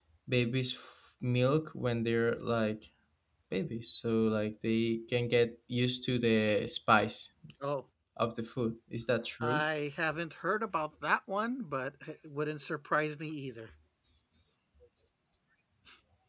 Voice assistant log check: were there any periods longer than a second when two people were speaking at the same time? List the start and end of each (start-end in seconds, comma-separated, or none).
none